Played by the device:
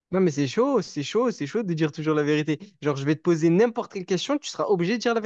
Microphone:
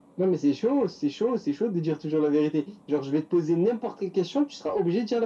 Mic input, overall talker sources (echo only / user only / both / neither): echo only